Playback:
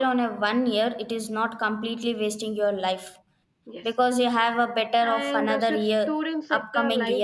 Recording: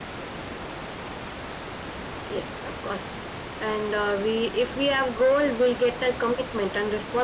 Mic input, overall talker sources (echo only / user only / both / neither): user only